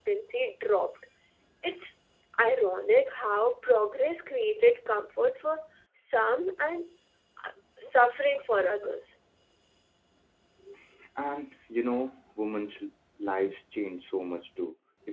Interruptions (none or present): none